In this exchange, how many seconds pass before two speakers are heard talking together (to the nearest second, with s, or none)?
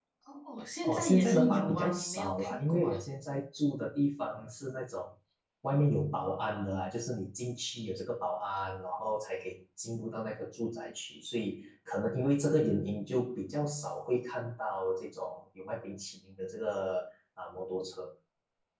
1 s